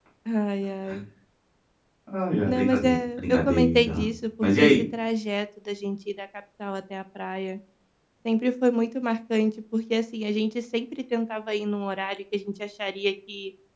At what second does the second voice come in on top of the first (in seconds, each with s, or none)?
2.4 s